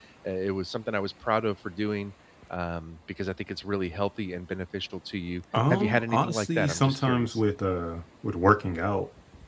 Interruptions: present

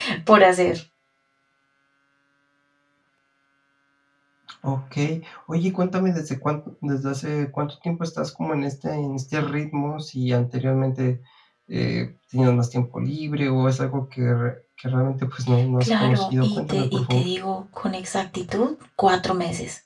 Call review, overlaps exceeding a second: present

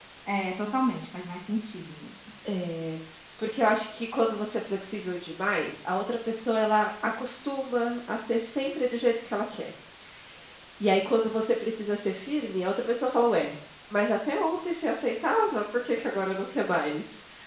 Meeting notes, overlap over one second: none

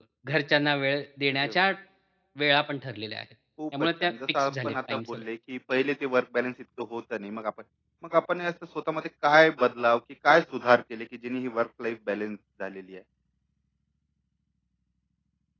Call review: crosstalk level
present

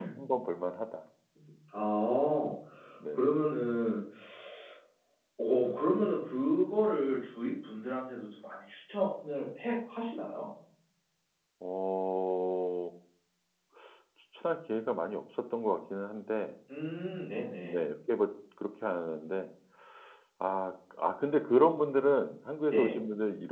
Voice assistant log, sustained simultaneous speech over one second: none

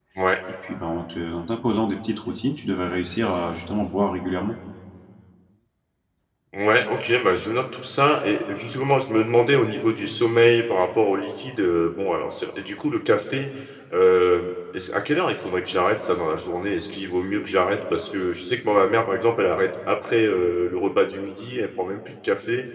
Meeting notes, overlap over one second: none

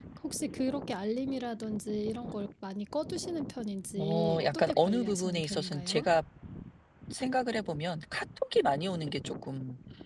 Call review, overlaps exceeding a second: present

